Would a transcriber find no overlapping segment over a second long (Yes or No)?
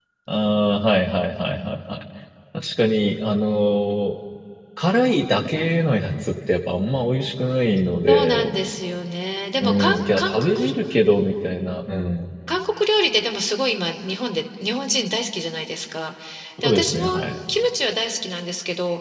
No